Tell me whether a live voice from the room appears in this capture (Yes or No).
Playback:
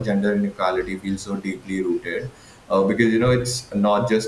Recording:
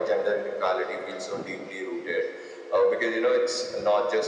No